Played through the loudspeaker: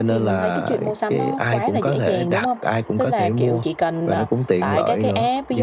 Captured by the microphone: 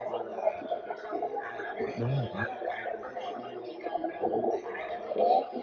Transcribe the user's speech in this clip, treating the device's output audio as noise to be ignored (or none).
đúng rồi, đúng,